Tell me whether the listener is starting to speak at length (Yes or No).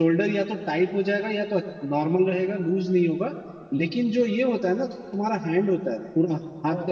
No